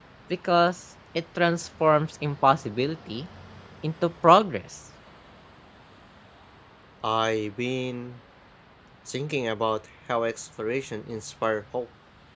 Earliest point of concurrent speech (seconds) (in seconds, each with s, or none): none